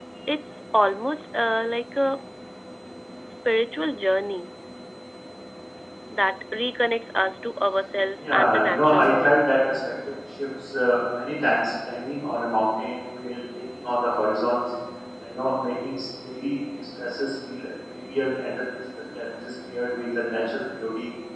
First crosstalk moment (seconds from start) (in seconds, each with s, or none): 8.2 s